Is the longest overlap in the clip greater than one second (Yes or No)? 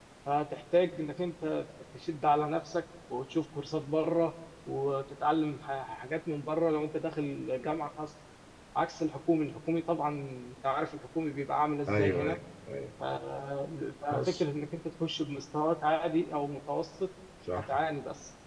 No